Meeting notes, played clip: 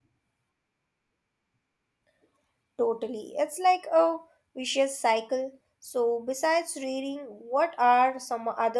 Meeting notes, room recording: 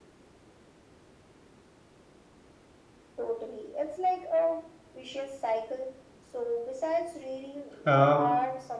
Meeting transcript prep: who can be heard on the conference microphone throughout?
both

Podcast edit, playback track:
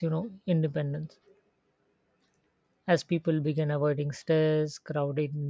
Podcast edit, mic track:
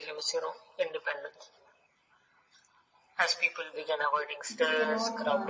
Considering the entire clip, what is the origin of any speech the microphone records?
both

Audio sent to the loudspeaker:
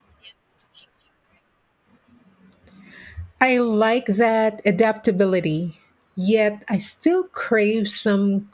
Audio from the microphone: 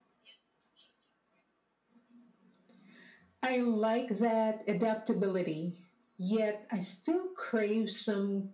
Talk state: echo only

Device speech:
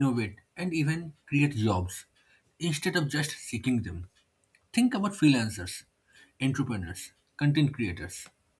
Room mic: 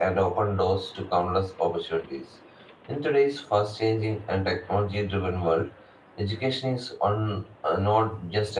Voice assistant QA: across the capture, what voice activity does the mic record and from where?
user only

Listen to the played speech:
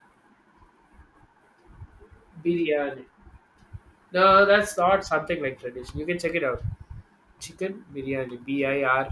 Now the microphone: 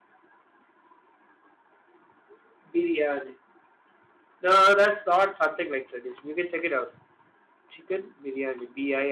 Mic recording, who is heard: echo only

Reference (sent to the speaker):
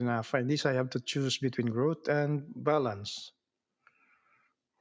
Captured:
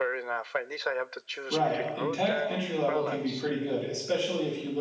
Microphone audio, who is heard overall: both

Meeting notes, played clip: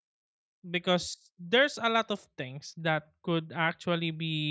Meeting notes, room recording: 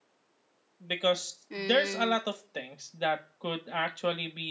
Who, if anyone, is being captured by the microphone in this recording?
both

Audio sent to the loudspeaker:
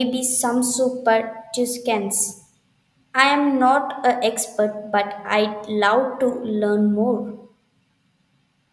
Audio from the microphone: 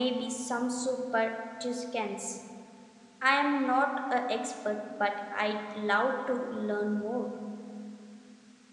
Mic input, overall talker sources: echo only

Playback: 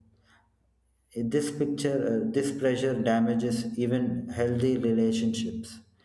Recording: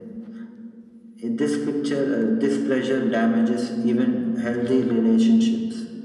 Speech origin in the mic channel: echo only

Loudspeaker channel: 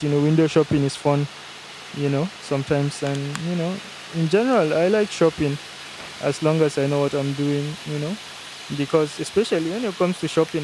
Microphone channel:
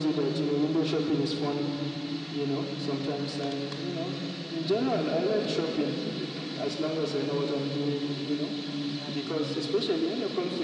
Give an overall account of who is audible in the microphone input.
both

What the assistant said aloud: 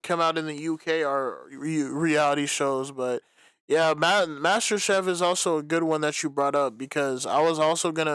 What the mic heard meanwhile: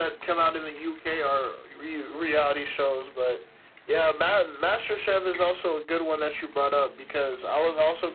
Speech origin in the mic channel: echo only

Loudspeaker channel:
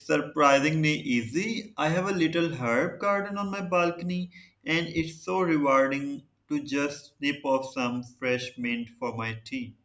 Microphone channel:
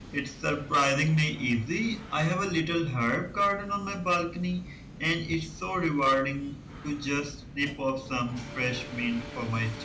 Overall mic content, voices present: echo only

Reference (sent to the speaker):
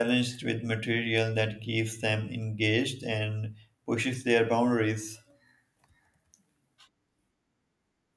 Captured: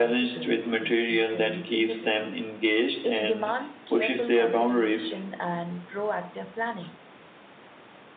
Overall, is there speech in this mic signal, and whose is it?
both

